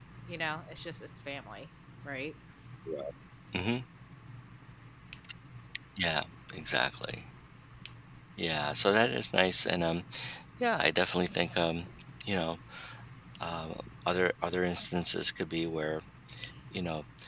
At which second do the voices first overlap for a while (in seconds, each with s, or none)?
none